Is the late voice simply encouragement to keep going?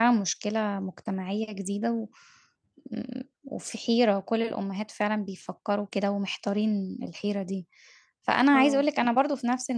Yes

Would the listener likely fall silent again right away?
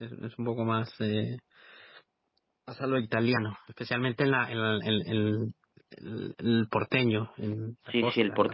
No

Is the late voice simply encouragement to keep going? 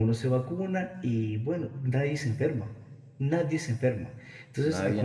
Yes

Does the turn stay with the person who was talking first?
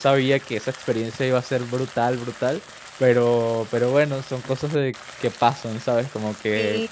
Yes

